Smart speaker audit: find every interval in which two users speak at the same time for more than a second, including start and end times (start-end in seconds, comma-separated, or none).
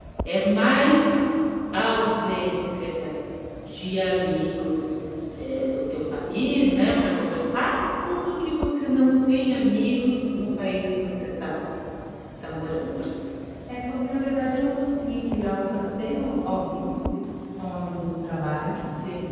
none